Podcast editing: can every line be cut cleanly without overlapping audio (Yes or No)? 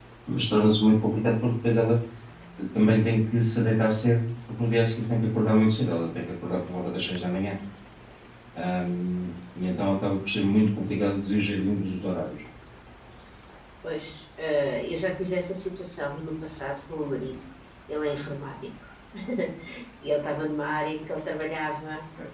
Yes